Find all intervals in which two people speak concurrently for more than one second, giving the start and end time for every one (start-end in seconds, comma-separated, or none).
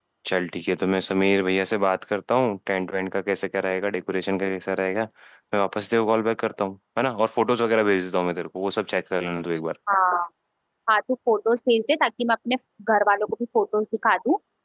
none